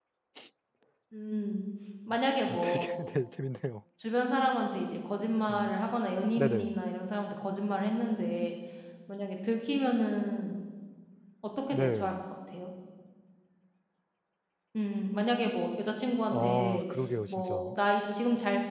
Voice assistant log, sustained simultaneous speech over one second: none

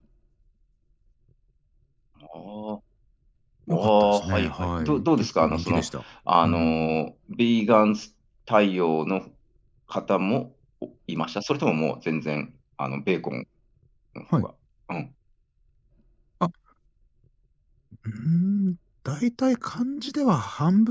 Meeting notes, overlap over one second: present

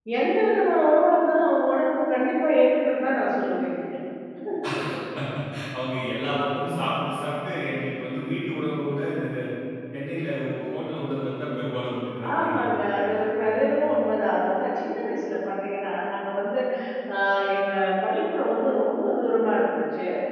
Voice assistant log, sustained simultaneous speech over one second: present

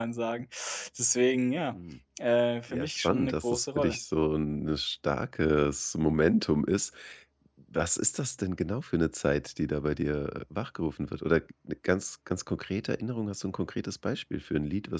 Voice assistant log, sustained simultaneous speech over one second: present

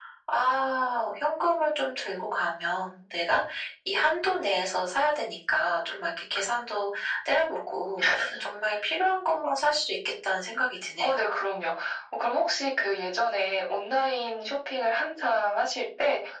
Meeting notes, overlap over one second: none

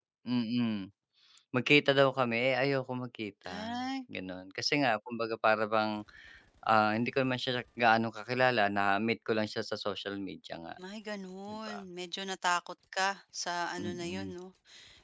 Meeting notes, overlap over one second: none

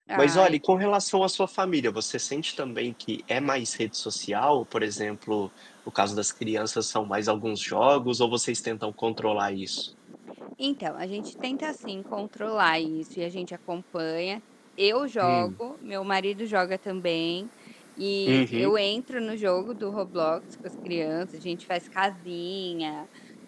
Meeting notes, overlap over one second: none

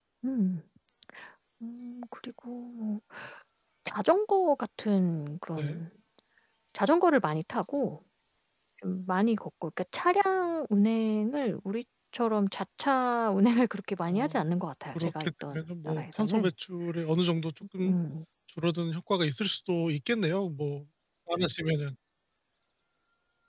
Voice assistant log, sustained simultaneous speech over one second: present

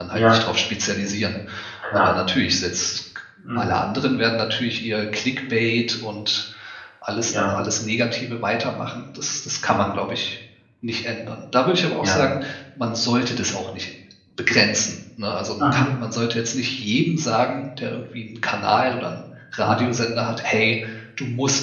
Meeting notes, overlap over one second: none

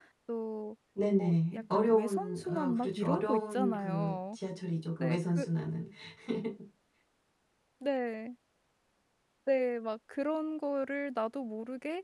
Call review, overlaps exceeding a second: present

